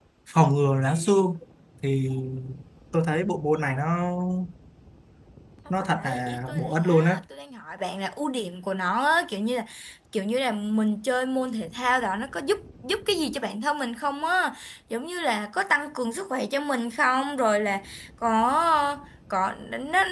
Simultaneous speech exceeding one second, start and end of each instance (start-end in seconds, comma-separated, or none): 5.9-7.2